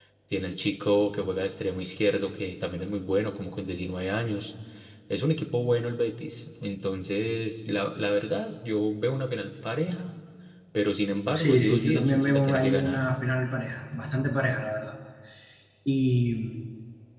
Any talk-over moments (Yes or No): Yes